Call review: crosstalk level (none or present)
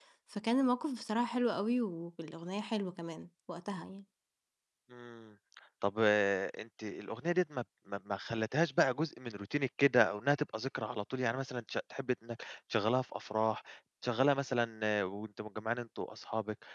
none